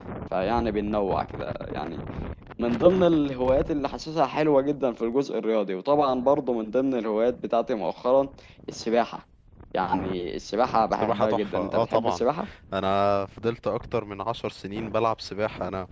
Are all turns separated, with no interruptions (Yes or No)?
No